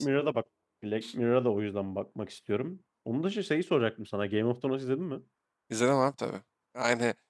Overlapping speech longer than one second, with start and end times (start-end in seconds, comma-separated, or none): none